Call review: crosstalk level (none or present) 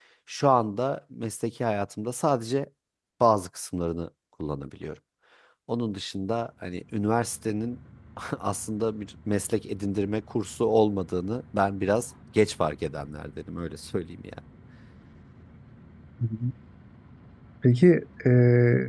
none